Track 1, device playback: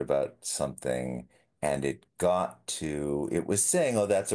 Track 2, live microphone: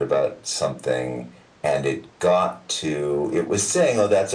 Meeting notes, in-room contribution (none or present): none